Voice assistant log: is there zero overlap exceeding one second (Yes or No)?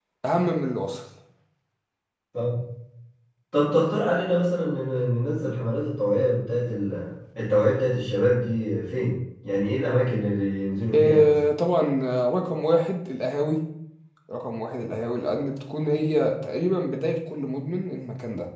Yes